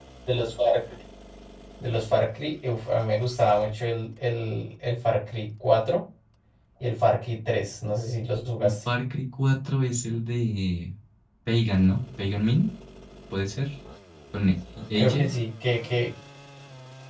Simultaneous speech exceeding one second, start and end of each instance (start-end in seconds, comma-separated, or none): none